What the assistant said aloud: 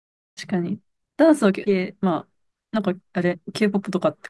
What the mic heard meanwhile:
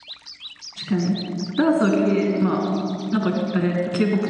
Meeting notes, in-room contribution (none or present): none